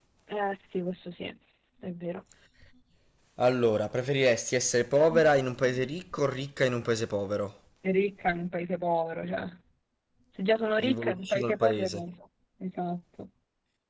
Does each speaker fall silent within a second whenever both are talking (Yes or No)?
No